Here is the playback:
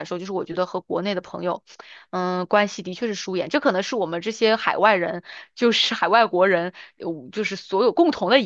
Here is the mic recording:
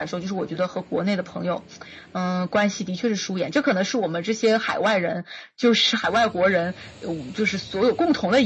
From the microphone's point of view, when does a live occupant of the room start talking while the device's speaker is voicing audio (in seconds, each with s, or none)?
none